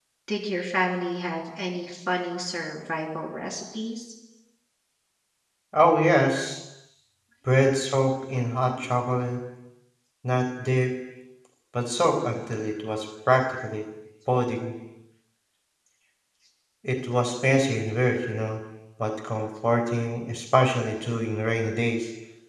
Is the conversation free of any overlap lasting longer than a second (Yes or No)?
Yes